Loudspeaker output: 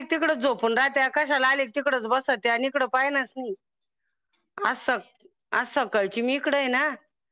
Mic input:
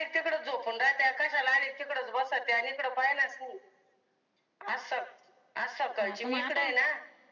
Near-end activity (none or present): present